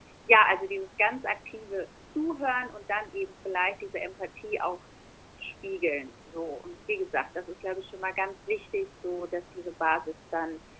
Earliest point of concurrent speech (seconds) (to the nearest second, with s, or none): none